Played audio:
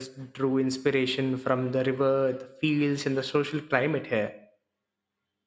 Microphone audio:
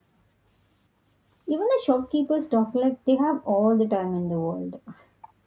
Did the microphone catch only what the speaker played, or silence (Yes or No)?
No